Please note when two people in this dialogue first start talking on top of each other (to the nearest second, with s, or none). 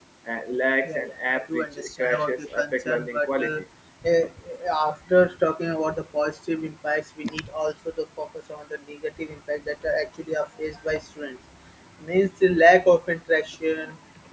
1 s